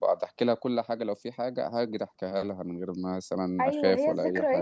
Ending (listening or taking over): taking over